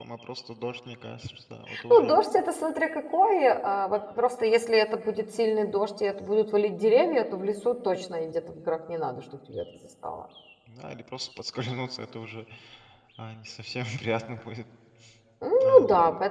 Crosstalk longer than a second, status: none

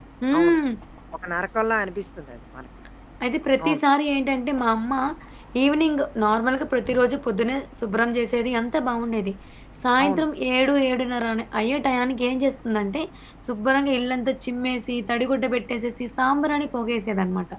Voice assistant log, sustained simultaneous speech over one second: none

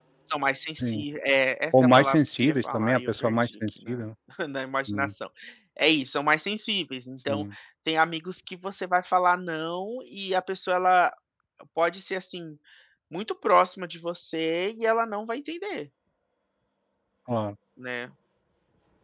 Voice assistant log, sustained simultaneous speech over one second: present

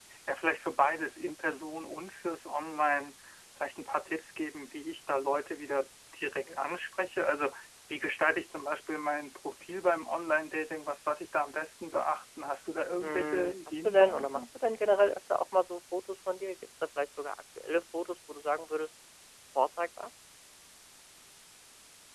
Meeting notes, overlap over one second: present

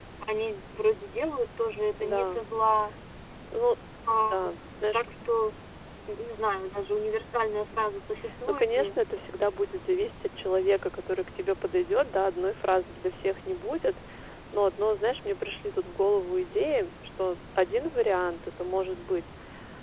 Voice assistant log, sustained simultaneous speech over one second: none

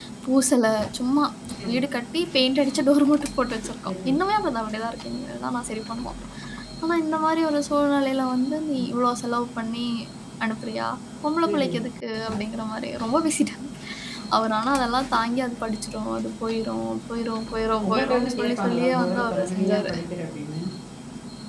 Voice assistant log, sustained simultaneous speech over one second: present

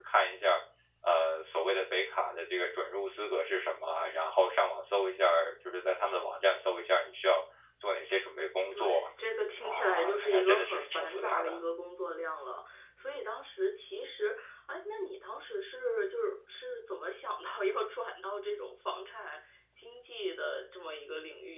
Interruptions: present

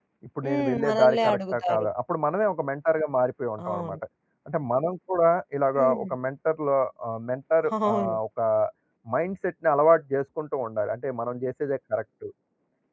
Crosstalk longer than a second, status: present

